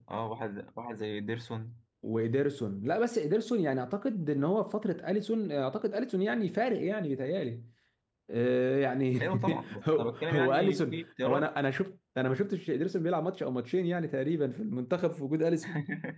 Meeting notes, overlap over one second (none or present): present